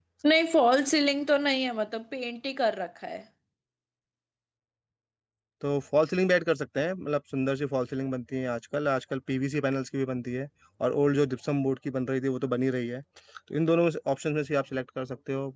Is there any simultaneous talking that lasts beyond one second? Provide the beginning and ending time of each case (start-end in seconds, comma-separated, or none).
none